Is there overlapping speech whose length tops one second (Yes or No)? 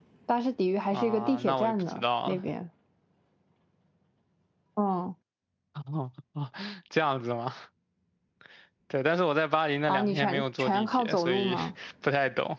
Yes